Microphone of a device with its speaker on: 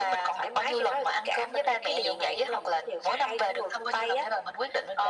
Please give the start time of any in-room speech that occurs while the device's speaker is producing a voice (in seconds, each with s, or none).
none